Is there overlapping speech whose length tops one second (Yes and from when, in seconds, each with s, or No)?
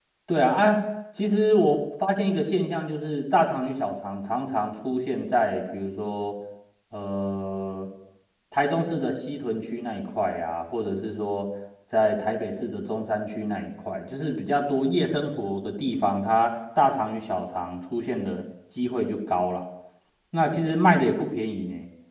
No